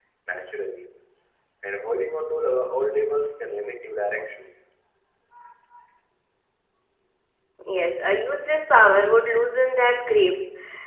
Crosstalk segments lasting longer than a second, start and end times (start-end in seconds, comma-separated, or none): none